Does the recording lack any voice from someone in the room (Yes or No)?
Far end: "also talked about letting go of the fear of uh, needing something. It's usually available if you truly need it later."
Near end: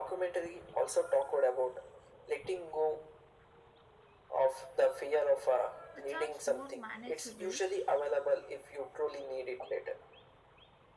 No